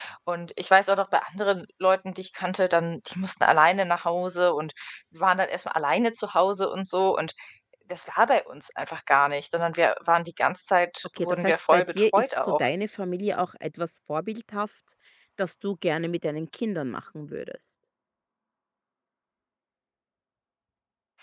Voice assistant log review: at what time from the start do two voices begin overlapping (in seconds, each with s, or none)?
11.2 s